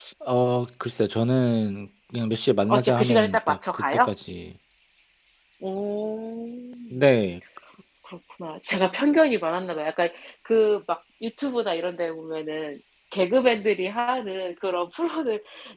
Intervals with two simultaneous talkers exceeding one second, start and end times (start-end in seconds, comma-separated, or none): 2.7-4.1